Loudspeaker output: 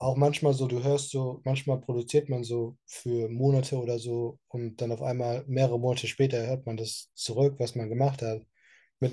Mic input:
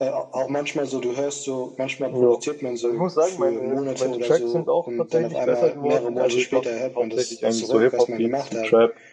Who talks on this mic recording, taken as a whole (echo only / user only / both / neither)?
both